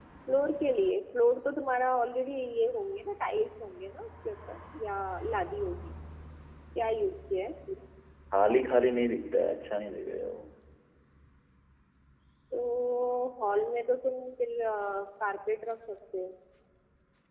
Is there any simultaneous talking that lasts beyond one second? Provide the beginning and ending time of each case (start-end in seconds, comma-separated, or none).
none